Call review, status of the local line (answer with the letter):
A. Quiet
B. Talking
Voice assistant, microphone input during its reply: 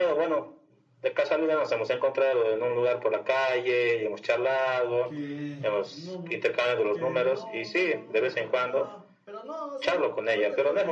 B